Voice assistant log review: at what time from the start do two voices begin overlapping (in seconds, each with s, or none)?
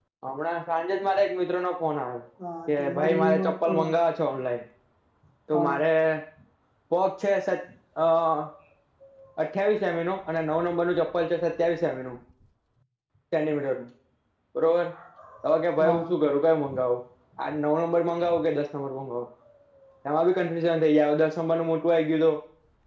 2.7 s